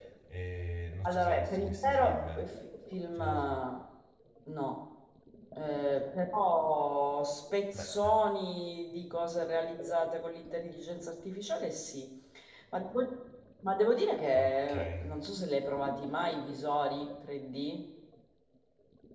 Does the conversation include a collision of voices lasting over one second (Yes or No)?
Yes